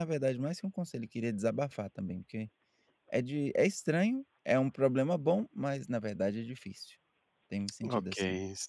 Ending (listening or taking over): taking over